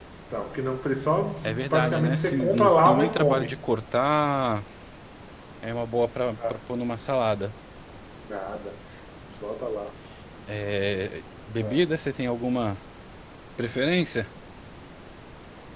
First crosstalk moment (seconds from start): 1 s

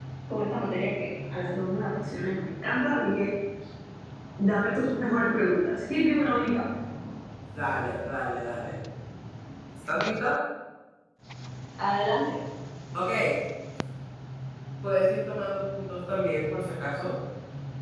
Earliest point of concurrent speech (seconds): none

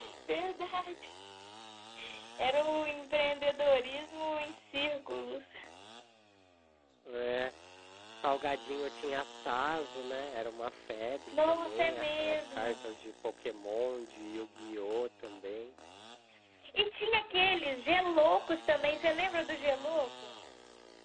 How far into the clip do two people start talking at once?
11 s

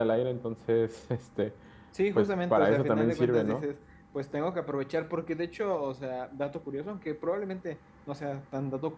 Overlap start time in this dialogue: 2 s

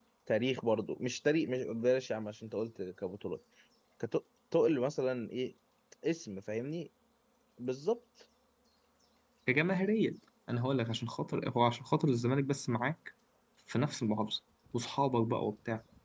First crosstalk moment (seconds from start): none

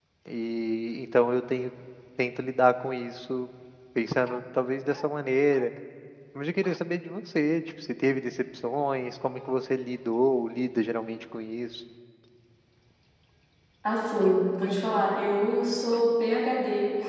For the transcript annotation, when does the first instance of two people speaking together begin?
none

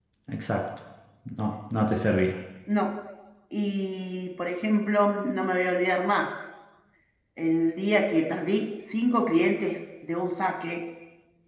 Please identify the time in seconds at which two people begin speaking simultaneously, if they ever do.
none

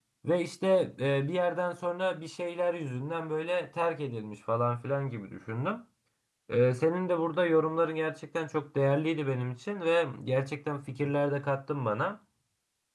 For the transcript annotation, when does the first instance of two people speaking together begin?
none

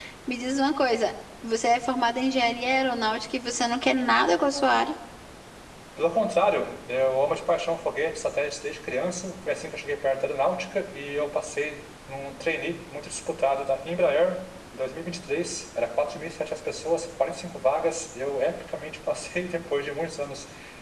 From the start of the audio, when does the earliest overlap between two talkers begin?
none

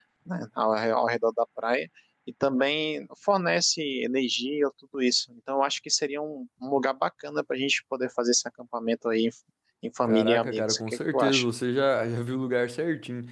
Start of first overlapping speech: 10 s

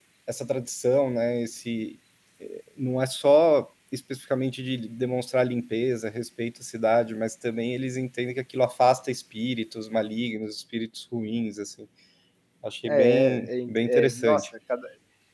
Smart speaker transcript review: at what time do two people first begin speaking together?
13 s

